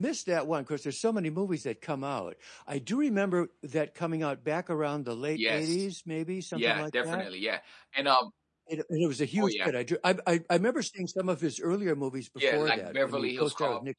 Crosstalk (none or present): present